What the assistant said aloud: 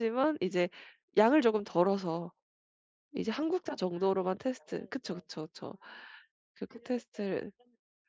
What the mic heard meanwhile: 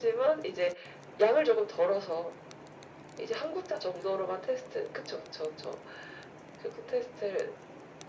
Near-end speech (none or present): none